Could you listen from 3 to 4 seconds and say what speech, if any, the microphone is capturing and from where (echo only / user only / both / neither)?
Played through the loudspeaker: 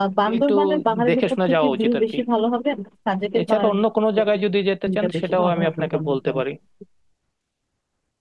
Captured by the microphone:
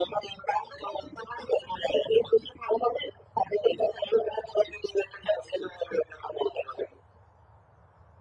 echo only